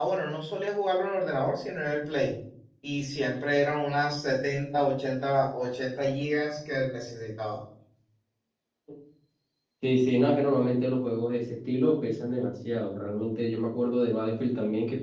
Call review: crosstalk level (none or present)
none